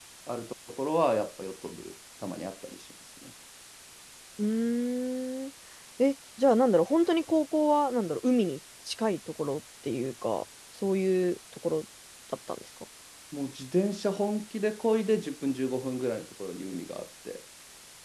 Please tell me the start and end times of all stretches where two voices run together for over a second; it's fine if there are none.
none

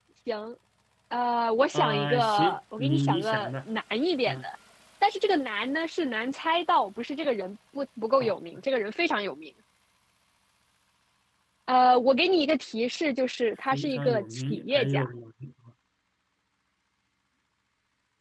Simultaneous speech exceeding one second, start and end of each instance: 1.7-3.5, 13.7-15.1

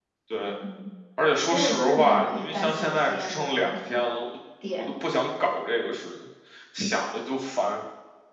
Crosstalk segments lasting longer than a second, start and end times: 1.4-4.0

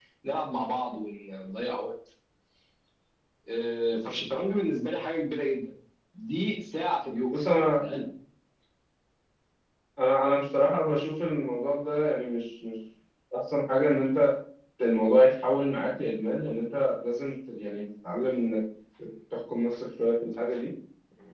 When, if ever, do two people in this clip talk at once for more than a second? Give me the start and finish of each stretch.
none

